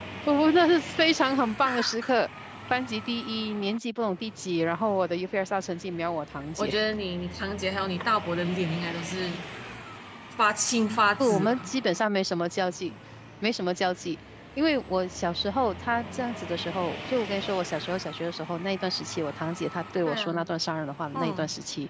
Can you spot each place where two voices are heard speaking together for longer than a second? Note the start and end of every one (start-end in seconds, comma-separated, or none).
none